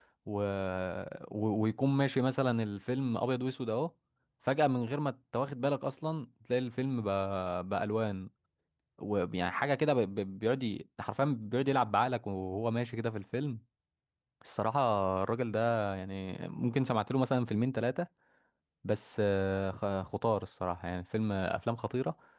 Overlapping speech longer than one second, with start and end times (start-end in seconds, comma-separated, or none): none